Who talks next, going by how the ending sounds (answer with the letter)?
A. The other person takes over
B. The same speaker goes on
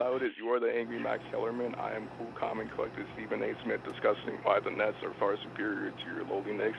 A